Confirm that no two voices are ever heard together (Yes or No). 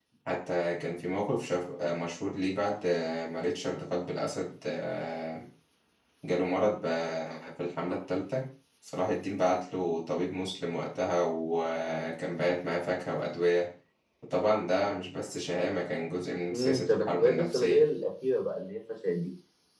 No